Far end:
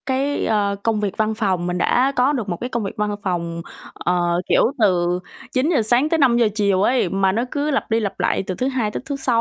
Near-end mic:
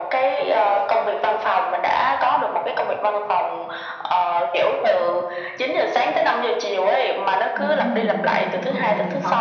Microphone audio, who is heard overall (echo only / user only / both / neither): both